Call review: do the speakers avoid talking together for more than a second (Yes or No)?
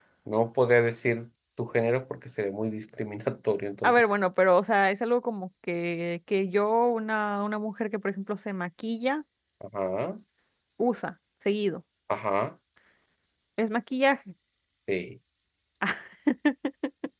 Yes